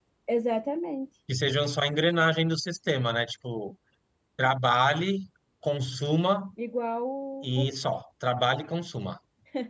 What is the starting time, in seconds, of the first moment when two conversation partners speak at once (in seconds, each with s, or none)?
none